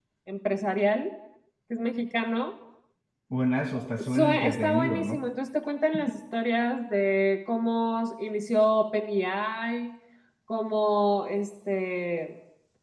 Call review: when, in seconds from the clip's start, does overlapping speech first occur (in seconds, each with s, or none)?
4.0 s